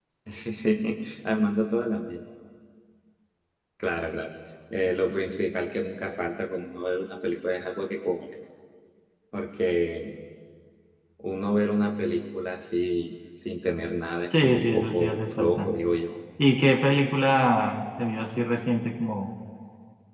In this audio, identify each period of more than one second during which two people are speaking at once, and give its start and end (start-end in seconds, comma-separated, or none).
14.4-15.7